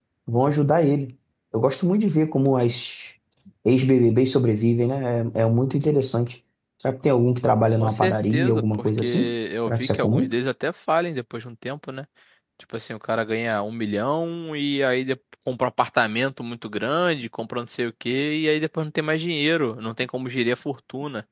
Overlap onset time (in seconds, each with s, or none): 7.8 s